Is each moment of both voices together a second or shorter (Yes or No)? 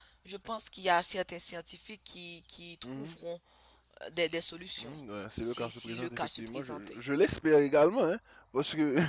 No